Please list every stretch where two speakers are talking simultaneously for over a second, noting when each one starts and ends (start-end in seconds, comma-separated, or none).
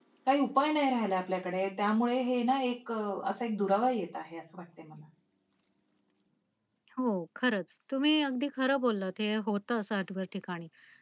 none